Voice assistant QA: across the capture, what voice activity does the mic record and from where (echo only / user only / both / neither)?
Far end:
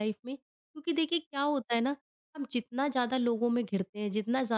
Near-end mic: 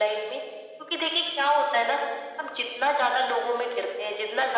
echo only